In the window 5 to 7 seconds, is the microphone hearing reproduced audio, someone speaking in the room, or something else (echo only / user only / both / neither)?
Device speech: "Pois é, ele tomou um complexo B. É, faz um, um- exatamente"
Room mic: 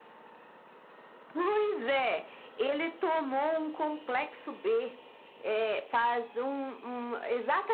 echo only